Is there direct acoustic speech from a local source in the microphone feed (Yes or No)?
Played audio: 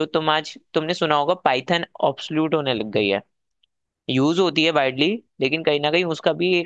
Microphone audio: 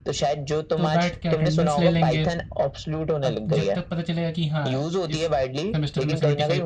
Yes